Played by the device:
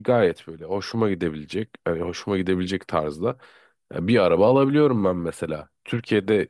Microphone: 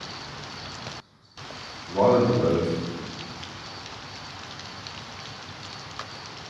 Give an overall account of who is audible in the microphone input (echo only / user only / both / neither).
user only